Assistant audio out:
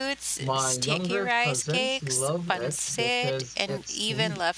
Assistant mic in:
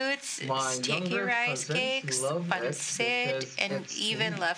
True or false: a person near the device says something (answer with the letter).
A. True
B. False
B